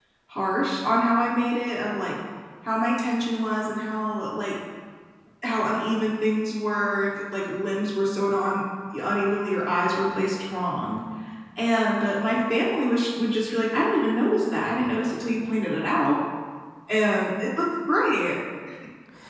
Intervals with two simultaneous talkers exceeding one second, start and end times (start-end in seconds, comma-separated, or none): none